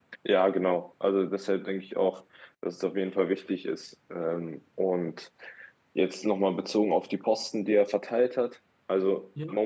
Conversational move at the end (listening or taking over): listening